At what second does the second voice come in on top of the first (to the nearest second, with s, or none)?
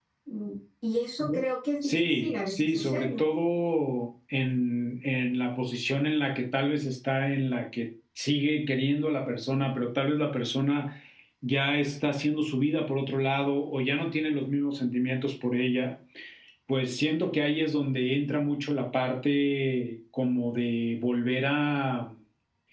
2 s